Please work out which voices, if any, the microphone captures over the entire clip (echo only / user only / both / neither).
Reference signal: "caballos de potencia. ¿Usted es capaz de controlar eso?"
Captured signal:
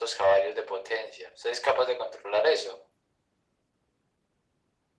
echo only